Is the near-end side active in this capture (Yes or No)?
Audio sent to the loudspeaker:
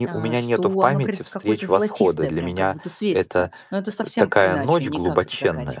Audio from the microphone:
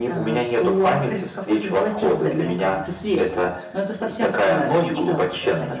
No